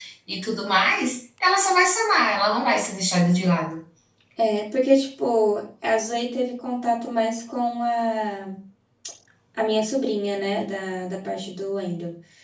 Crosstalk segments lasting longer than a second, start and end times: none

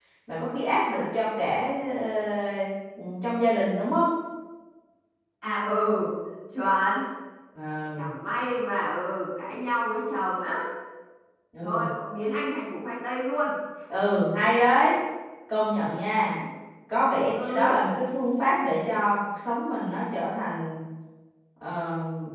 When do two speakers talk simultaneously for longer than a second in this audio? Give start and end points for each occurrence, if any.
none

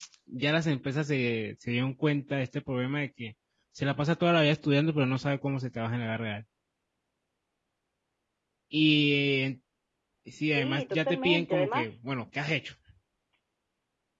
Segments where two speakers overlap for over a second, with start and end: 10.5-11.9

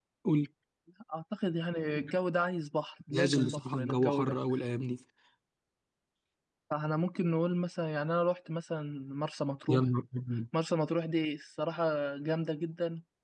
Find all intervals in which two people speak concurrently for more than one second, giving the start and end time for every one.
3.1-4.4

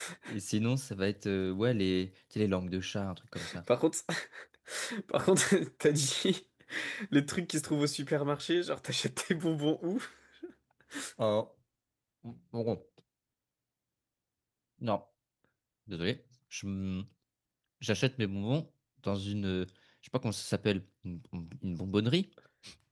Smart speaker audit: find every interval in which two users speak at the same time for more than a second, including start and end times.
none

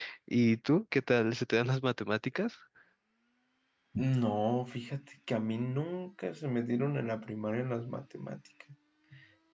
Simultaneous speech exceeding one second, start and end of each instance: none

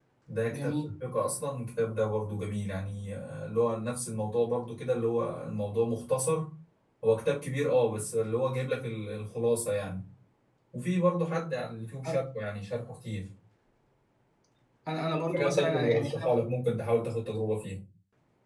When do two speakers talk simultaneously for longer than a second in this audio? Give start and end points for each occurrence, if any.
15.1-16.4

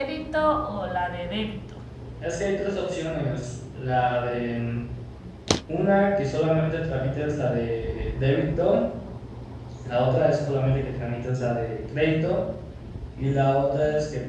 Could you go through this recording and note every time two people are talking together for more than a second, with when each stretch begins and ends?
none

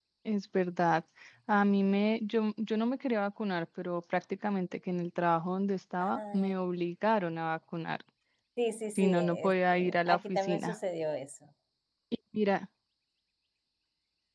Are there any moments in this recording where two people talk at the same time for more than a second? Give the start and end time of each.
9.0-10.8

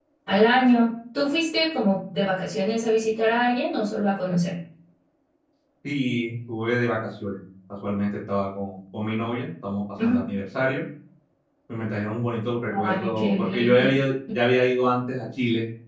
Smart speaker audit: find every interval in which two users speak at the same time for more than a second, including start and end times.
12.7-14.0

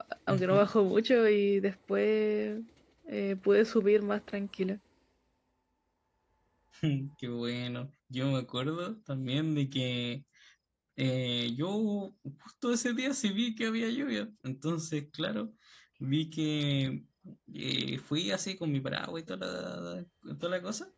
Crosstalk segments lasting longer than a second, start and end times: none

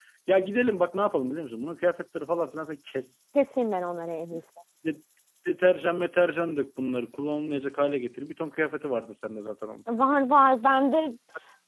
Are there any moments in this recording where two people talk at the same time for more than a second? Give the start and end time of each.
none

